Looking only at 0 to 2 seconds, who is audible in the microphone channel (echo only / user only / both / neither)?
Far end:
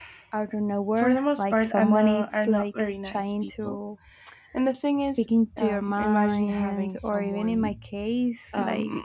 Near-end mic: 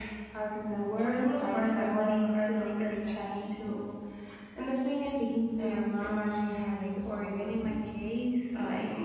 echo only